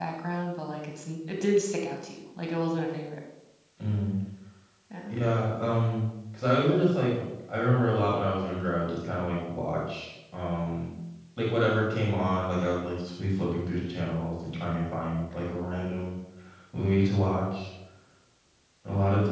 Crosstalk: none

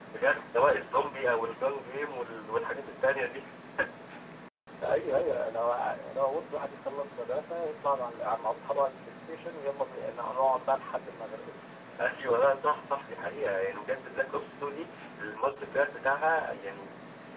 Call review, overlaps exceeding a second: none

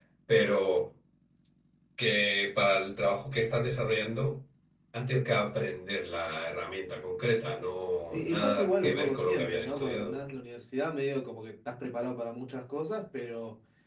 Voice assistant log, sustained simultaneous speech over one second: present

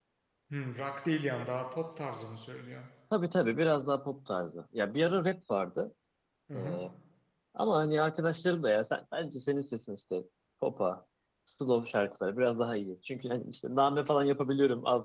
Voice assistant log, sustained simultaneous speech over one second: none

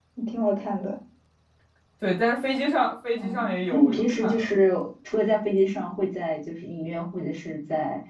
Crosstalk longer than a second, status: present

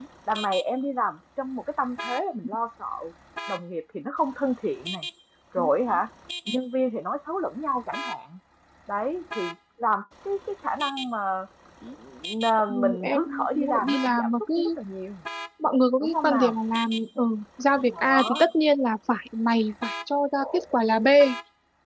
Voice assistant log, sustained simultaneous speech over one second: present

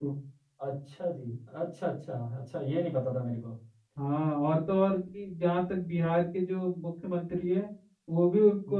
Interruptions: none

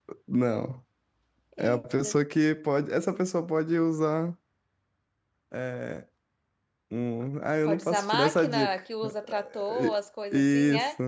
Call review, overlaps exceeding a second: present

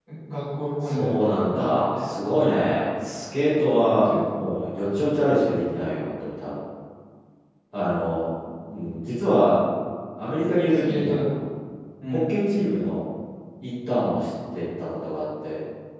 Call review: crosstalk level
present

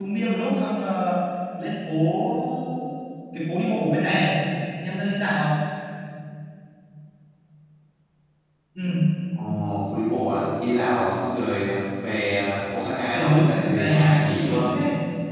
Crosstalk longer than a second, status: present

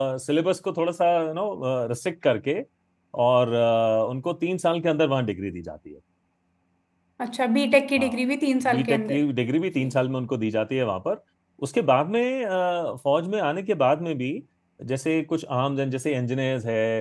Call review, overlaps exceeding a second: none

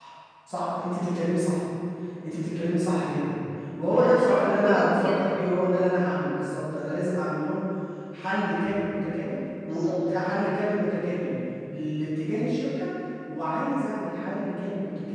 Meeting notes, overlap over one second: present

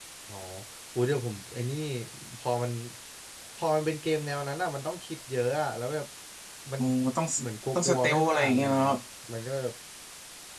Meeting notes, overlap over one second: present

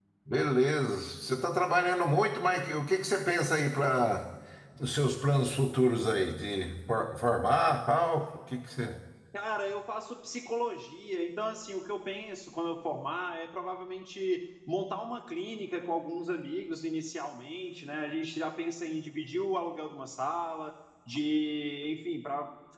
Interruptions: none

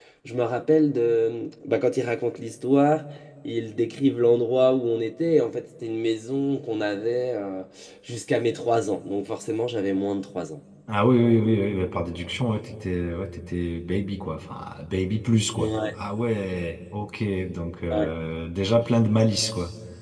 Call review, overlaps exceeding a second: none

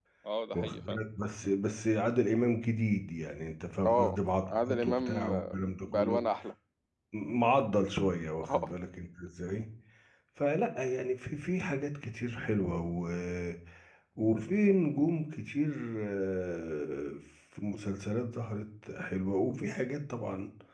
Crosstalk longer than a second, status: present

